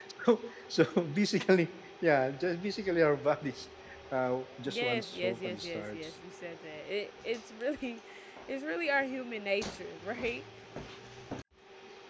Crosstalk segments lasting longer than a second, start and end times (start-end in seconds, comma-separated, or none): 4.7-6.0